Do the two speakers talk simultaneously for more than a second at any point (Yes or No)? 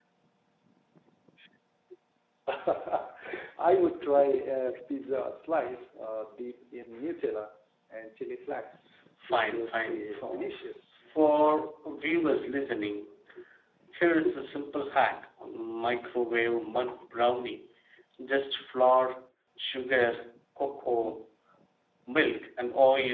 Yes